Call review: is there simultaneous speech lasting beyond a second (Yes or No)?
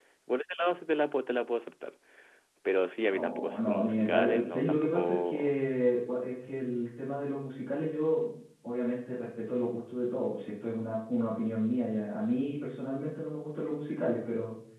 Yes